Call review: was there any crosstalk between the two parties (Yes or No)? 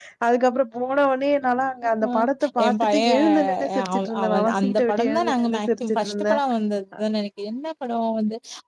Yes